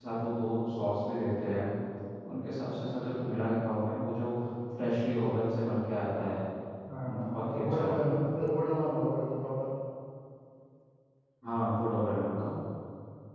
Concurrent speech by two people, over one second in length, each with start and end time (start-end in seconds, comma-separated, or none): 7.0-8.3